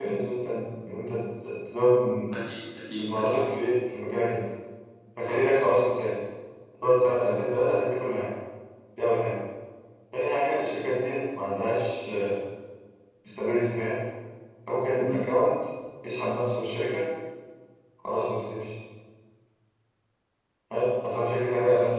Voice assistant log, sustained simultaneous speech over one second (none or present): none